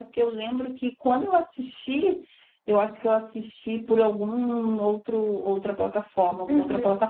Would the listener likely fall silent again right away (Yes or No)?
No